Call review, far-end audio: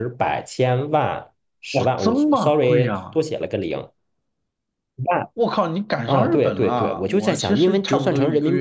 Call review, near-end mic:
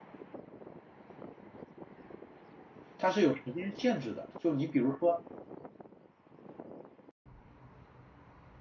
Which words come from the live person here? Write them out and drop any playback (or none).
它是有时间限制的。就你比如说，